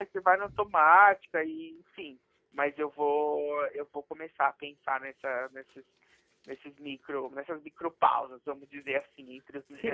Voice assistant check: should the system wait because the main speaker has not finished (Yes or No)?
No